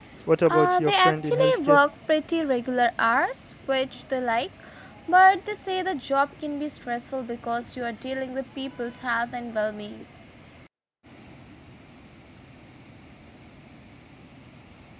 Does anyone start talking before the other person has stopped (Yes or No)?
Yes